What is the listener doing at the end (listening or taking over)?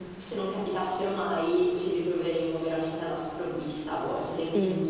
taking over